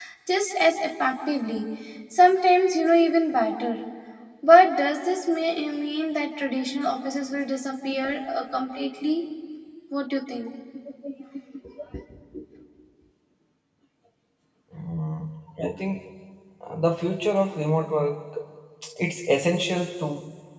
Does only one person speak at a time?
Yes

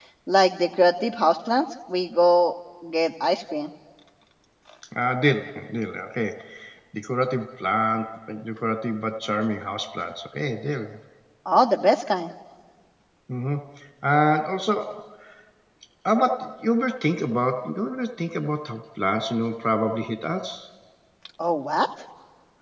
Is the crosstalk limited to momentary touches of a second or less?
Yes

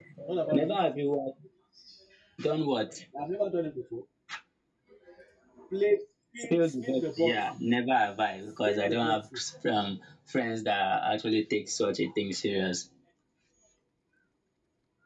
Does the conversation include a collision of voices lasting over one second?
Yes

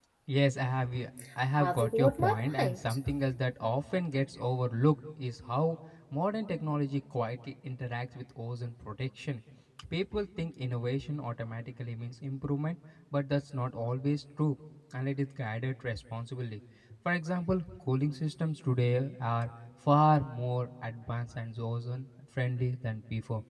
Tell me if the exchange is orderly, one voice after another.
No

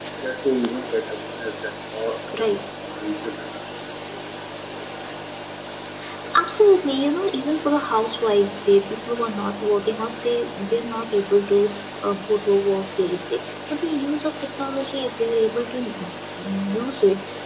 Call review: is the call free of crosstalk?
Yes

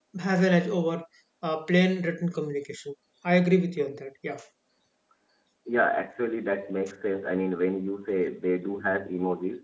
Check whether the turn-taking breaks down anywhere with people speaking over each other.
No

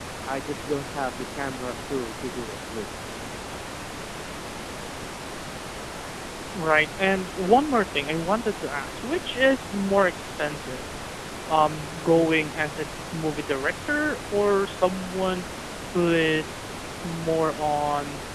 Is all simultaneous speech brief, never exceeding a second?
Yes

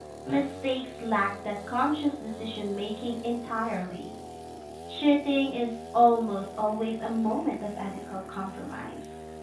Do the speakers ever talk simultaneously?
No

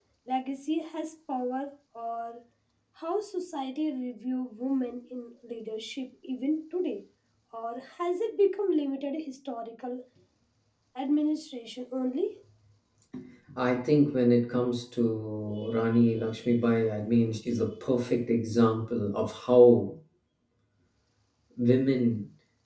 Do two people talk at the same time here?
No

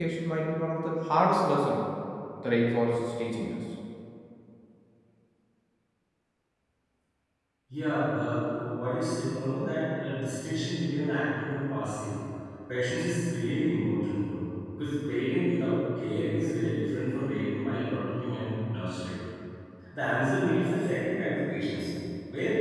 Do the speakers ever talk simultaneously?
No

